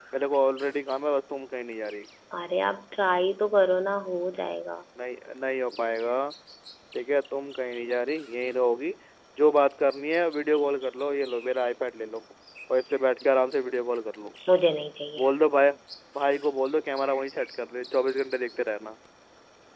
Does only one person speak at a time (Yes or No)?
Yes